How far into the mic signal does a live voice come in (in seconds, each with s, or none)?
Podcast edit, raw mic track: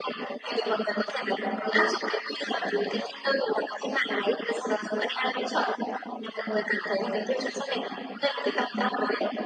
none